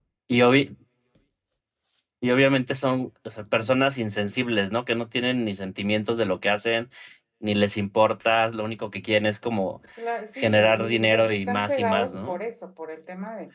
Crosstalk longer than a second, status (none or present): present